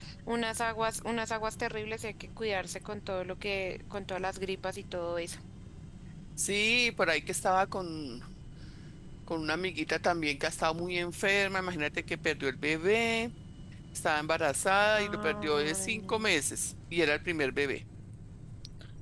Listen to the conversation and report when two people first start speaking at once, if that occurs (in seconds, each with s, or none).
15.0 s